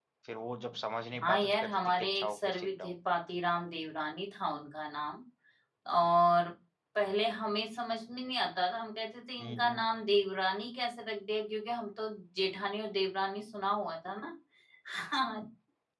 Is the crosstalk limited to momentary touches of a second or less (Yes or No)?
No